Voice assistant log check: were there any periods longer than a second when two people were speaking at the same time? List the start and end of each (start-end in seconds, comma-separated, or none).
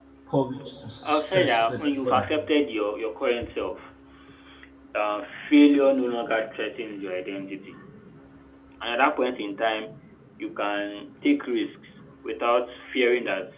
1.1-2.3